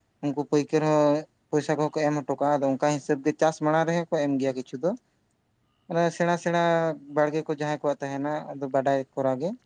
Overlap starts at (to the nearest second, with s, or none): none